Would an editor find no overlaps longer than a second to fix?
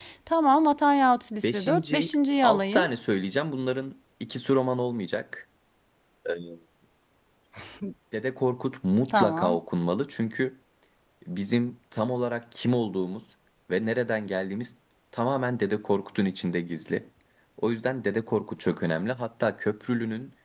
No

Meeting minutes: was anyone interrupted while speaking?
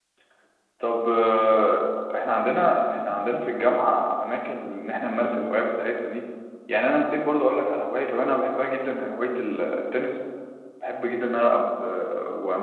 No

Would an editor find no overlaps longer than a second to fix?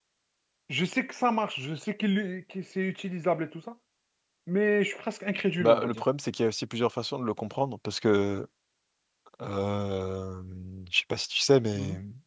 Yes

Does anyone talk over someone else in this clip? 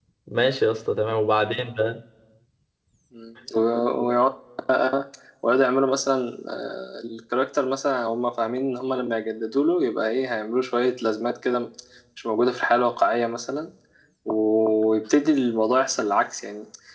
No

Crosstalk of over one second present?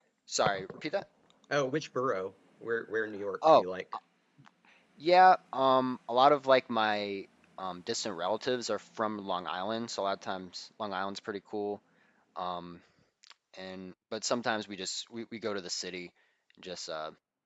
No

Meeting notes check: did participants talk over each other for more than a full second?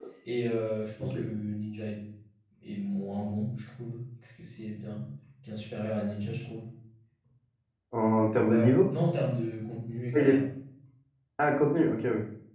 No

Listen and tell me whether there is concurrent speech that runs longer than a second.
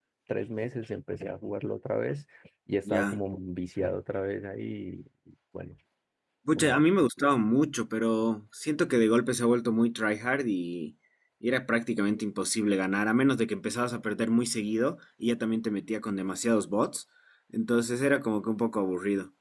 No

